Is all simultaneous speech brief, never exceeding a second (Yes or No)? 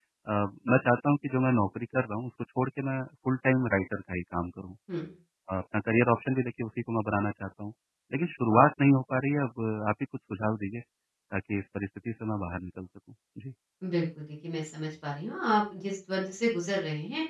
Yes